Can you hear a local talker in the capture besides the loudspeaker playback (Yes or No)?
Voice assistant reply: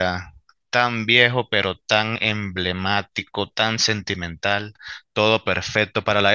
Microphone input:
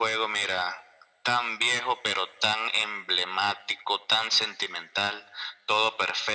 No